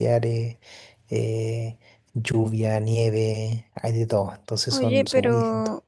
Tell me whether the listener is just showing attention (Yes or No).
No